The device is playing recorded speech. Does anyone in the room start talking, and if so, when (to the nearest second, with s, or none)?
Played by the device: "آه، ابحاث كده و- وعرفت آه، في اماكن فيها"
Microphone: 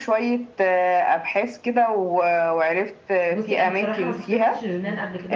3 s